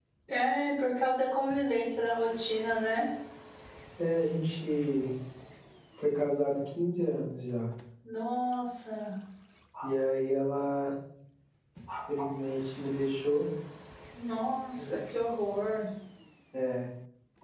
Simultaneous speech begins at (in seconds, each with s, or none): none